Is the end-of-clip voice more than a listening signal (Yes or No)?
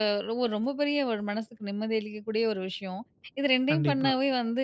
No